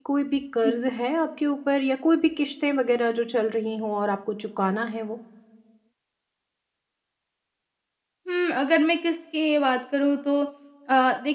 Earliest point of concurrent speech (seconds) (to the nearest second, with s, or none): none